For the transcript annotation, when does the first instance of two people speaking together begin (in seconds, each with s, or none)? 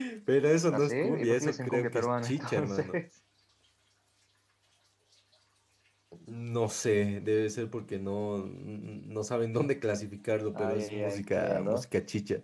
0.7 s